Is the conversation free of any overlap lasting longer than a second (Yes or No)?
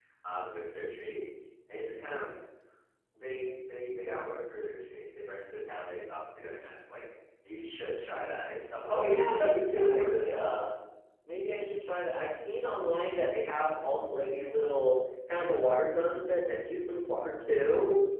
No